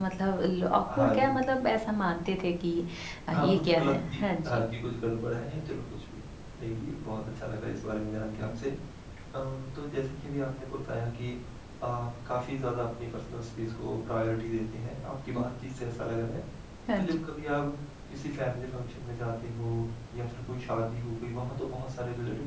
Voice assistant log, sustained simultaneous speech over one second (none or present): present